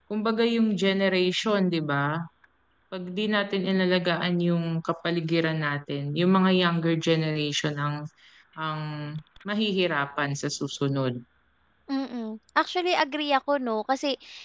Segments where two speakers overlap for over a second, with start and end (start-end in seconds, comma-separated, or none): none